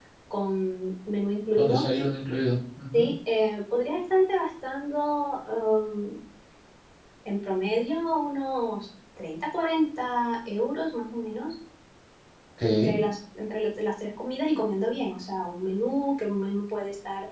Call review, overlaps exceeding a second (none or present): none